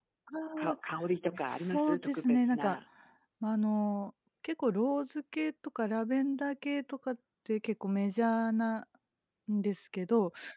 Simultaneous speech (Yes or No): Yes